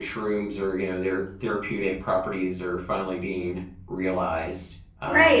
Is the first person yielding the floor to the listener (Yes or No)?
Yes